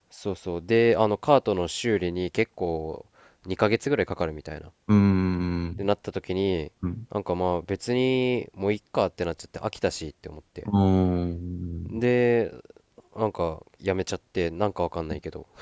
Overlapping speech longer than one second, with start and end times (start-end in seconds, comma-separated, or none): none